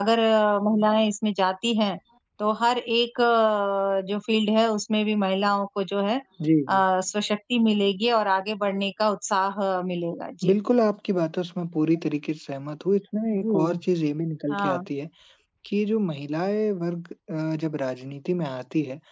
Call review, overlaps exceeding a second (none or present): none